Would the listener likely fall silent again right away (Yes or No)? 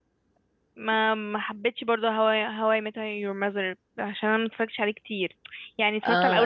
Yes